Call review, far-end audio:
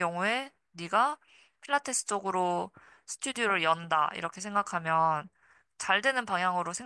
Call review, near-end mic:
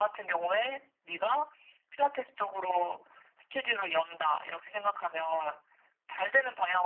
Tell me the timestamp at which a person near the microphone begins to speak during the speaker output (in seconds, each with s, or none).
none